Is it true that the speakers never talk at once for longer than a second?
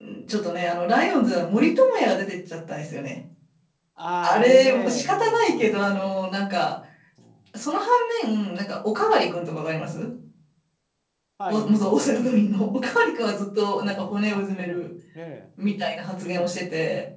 No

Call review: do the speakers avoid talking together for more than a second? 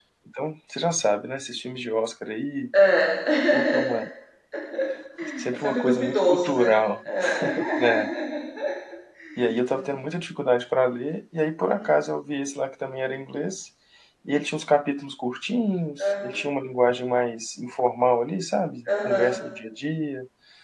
No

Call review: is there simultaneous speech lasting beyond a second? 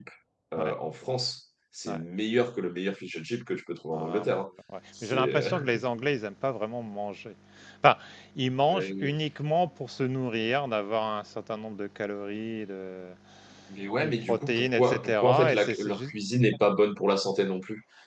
Yes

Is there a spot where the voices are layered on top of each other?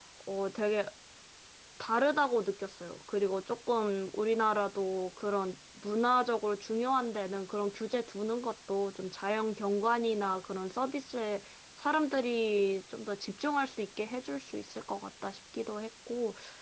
No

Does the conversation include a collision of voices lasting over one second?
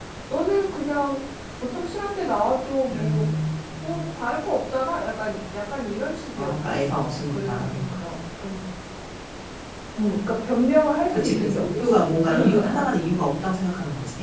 Yes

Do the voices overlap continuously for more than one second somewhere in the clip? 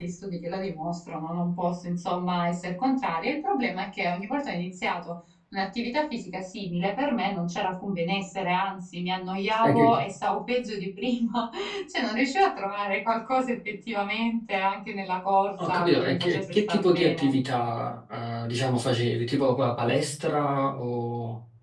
Yes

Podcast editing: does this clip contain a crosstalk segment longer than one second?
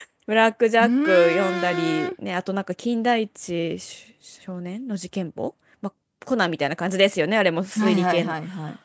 Yes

